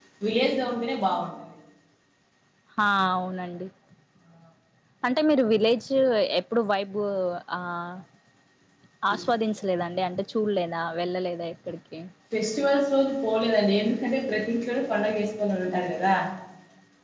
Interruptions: none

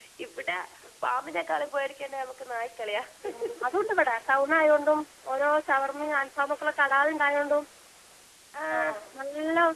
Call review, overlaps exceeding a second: none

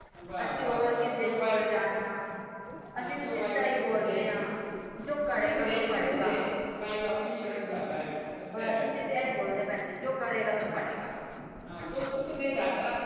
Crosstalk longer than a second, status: present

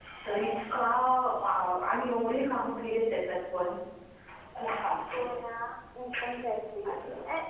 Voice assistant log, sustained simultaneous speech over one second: none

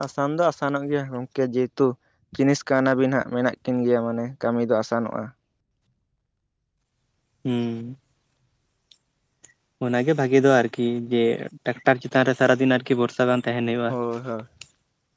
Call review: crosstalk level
none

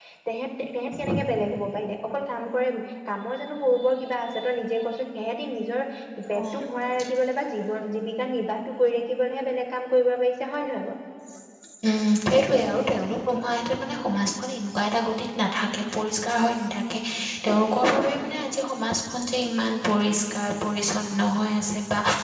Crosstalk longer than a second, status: none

